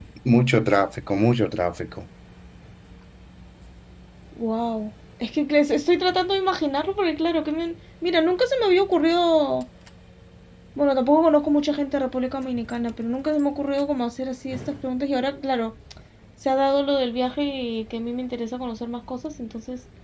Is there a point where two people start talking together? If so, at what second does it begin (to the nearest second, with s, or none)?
none